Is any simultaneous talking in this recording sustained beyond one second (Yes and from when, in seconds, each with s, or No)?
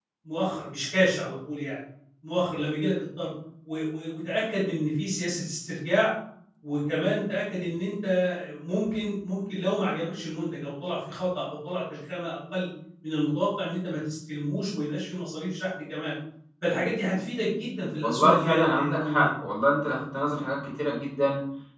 Yes, from 18.0 s